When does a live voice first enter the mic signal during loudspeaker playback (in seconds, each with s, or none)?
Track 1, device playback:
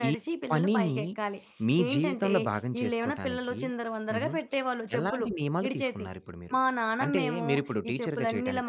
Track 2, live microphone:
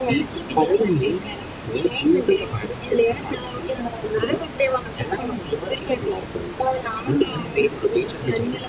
none